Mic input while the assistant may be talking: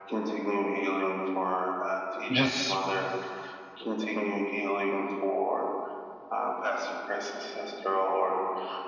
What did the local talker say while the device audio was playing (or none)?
just,